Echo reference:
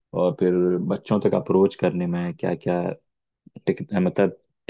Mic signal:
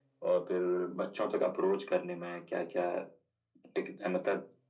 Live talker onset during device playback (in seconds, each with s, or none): none